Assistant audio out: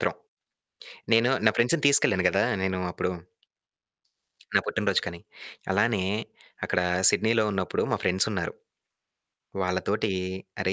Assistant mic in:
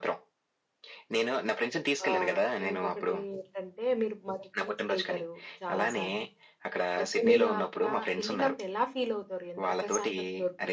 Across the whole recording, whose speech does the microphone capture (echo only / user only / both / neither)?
both